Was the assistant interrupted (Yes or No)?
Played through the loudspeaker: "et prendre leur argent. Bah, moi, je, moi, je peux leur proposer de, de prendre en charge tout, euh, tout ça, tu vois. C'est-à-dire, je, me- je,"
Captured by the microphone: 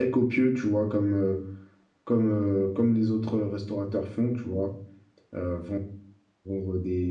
Yes